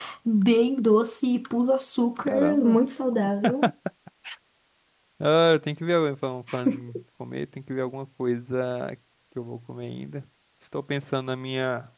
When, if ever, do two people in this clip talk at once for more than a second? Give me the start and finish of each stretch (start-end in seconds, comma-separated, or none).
none